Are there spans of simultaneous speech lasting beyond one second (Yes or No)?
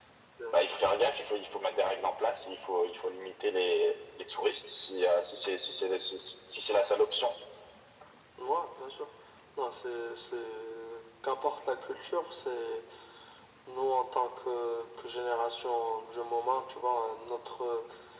No